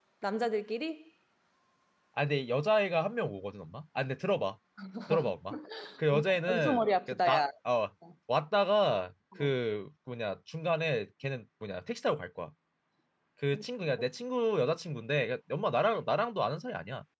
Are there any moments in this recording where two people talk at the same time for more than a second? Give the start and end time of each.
6.1-7.4

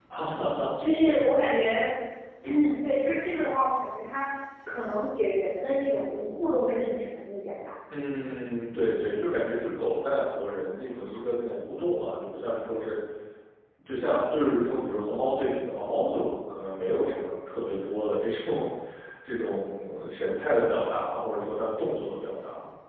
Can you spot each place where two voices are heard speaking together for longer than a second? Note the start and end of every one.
none

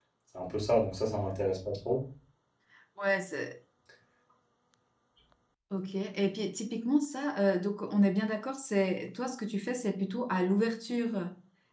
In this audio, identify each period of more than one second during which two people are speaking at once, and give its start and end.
none

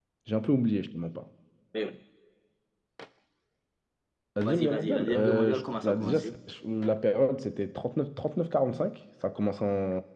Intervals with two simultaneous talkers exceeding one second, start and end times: 4.4-6.3

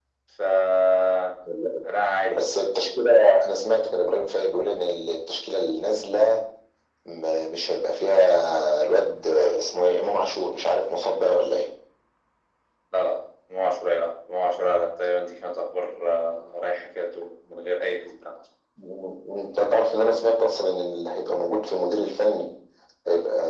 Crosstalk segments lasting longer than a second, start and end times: none

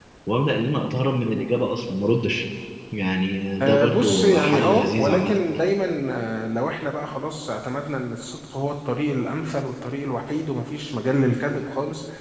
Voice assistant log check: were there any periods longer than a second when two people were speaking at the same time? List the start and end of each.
3.6-5.3

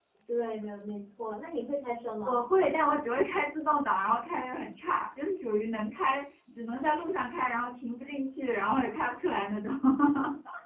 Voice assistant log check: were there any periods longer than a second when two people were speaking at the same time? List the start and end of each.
none

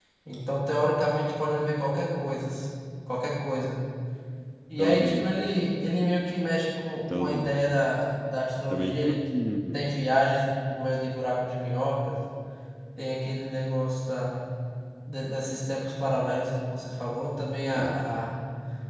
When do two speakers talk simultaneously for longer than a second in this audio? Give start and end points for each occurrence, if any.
none

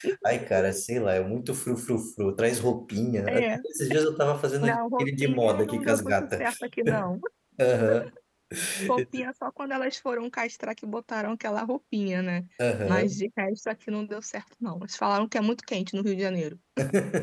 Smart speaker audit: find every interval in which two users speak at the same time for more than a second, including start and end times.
4.6-6.5

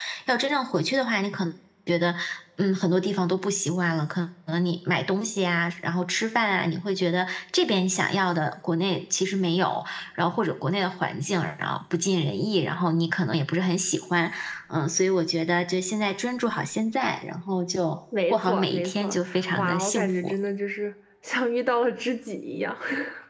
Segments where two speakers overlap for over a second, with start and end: 18.3-20.3

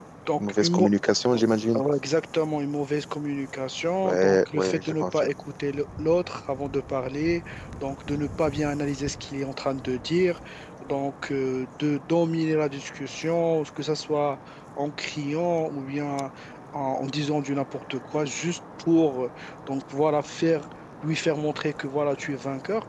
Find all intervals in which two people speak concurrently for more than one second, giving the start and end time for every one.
4.0-5.3

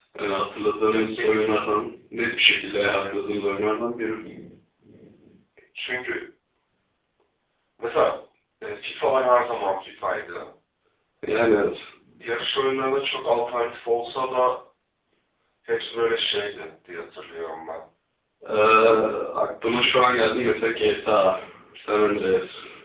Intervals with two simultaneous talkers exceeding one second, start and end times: none

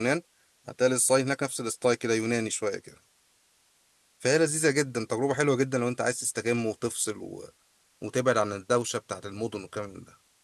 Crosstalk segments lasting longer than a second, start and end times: none

